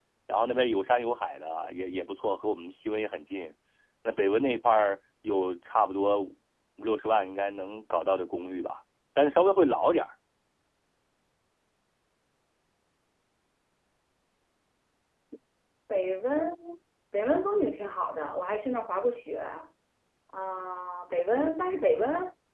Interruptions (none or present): none